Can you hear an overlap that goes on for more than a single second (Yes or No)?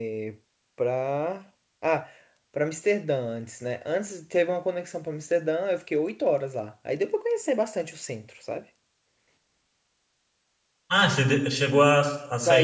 No